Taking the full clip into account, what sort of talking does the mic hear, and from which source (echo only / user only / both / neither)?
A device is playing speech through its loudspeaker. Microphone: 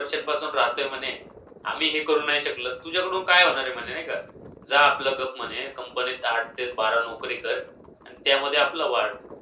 echo only